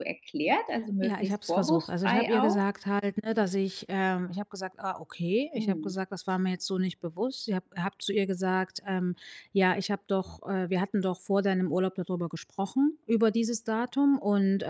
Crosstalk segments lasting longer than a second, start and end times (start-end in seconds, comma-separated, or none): 1.0-2.6